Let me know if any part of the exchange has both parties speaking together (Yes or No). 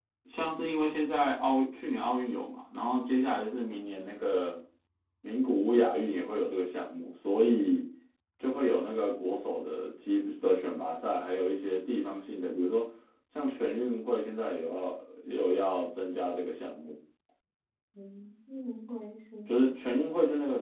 No